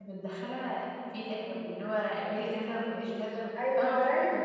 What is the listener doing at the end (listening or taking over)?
taking over